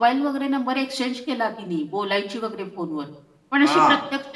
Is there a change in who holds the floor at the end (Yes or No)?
No